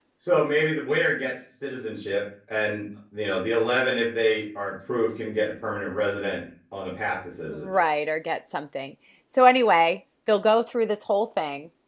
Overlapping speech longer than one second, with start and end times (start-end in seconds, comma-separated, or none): none